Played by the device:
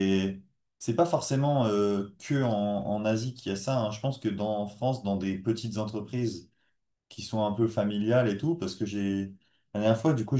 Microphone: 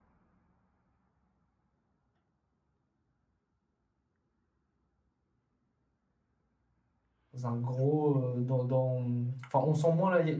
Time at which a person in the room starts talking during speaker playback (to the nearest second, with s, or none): 7 s